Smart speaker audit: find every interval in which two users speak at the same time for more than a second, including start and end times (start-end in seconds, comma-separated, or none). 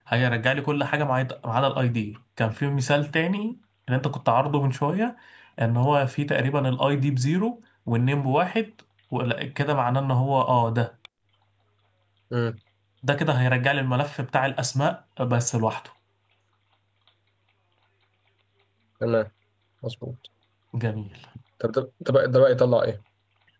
none